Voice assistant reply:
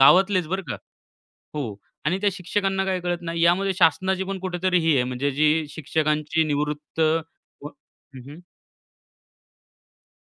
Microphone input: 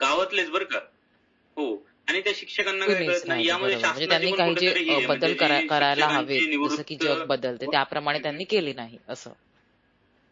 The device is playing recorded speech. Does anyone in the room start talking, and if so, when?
2.9 s

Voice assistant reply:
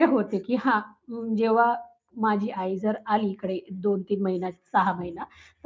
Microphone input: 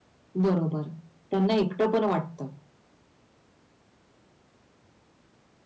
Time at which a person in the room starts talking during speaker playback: 0.4 s

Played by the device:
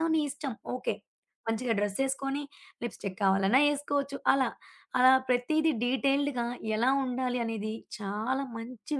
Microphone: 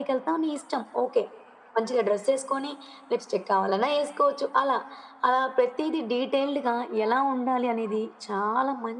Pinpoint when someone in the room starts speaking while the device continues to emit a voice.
none

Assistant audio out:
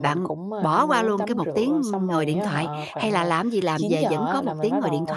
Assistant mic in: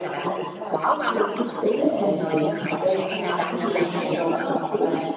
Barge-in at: 1.8 s

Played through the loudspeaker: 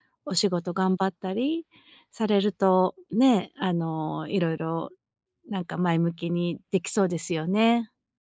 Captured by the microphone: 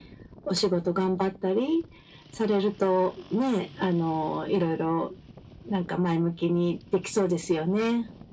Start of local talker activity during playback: none

